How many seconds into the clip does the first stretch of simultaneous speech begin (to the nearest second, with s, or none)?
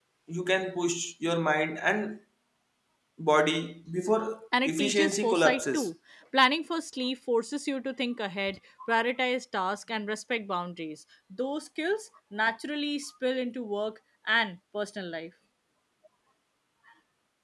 5 s